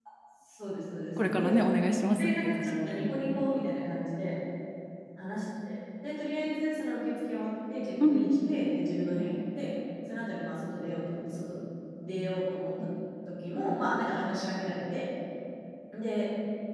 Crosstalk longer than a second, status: present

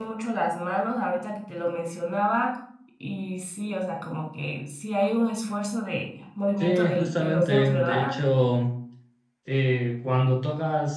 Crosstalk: present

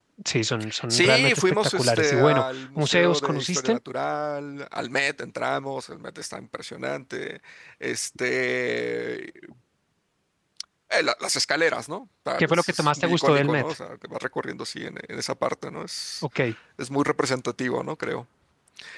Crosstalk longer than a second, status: present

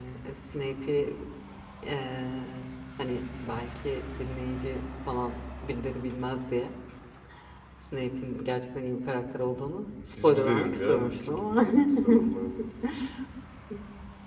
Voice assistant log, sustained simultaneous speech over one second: present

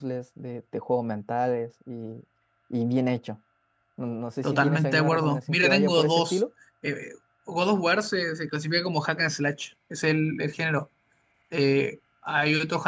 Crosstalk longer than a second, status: present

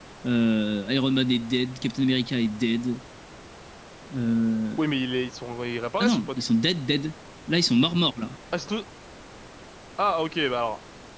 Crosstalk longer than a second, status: none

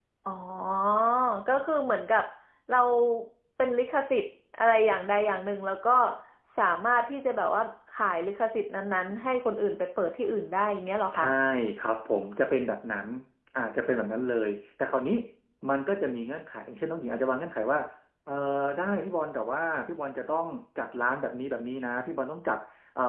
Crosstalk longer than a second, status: none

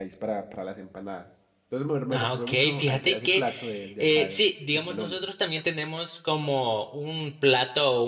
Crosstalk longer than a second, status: present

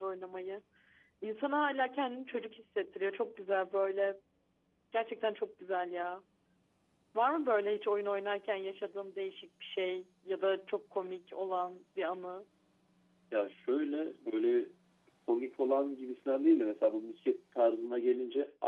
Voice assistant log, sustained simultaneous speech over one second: none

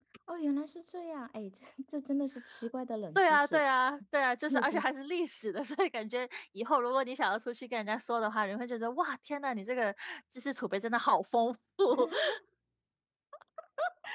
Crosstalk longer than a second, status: none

